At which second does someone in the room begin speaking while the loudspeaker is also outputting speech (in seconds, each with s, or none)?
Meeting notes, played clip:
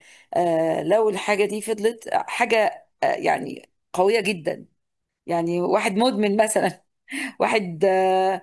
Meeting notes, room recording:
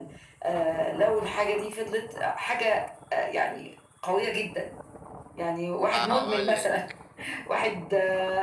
5.8 s